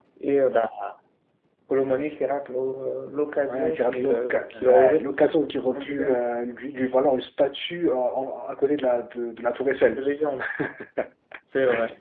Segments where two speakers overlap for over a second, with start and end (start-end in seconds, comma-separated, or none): 3.5-5.0